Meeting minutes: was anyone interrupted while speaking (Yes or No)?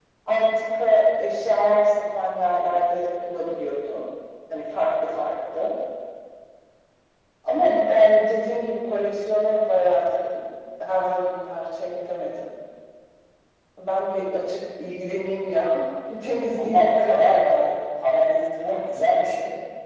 Yes